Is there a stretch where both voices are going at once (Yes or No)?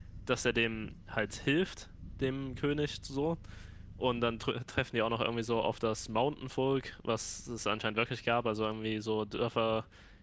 No